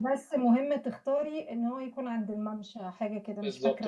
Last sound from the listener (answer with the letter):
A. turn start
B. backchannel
A